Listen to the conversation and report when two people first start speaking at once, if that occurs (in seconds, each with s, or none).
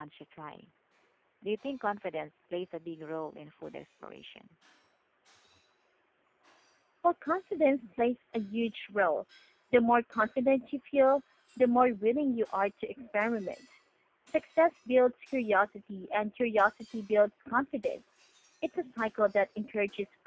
none